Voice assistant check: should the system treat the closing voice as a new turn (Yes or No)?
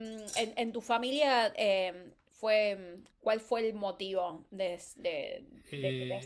Yes